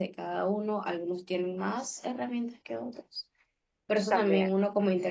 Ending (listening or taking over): listening